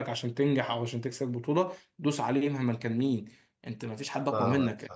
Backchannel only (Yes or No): No